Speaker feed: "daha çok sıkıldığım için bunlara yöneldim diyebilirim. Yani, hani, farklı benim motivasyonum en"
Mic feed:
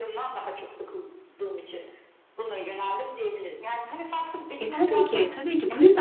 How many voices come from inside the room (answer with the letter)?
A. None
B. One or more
B